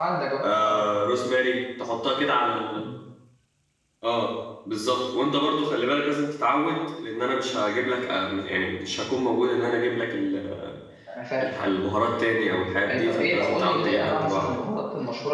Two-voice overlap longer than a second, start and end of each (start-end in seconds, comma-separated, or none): 12.9-14.6